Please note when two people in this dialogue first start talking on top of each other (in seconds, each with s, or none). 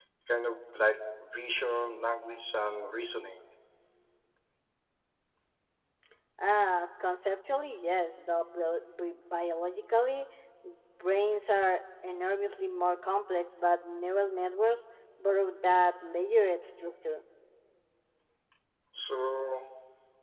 none